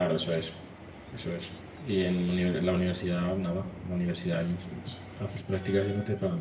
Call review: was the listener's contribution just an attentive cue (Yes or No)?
Yes